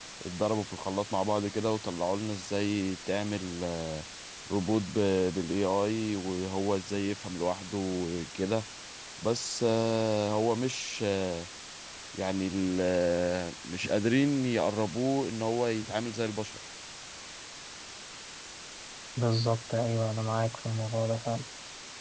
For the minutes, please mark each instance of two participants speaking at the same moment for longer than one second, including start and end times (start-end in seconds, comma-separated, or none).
none